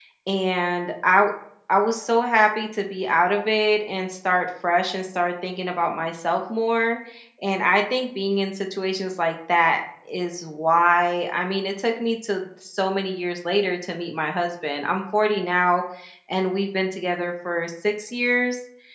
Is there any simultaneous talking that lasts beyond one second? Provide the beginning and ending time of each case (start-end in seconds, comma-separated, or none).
none